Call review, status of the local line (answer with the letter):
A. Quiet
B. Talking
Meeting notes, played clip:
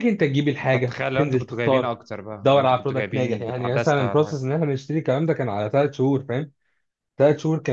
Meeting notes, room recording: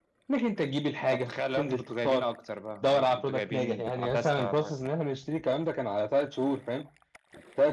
A